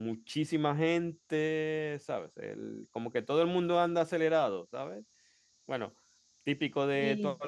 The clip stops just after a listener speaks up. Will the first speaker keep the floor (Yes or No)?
Yes